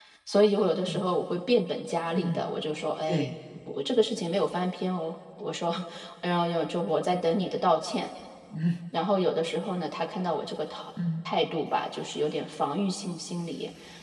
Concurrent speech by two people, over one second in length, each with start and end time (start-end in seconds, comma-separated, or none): none